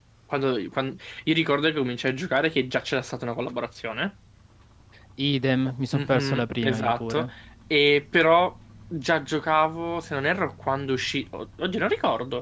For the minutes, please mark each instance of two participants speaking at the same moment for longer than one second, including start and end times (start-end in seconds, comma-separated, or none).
5.9-7.3